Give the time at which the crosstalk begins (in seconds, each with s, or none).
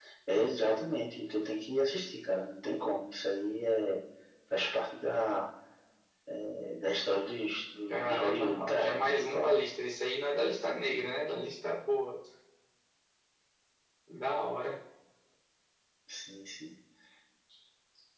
7.9 s